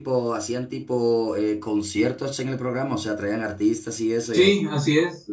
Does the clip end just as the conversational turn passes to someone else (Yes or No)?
Yes